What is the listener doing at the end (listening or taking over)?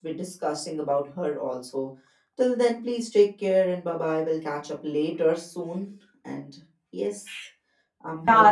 taking over